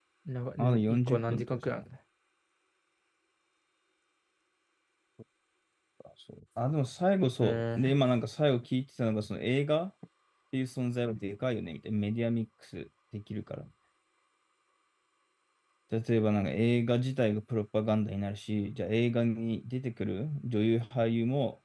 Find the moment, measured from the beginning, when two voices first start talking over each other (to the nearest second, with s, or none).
1 s